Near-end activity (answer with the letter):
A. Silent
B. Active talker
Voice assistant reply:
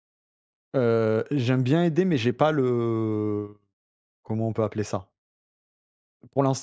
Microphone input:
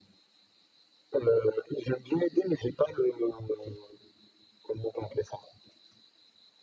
A